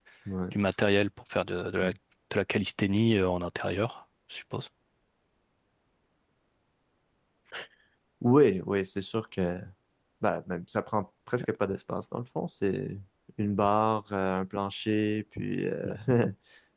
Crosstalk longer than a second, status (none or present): none